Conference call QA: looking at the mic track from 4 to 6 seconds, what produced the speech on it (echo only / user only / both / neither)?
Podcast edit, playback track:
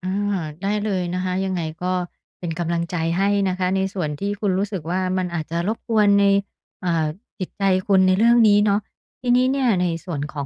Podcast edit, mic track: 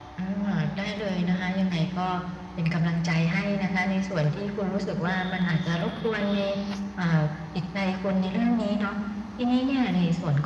echo only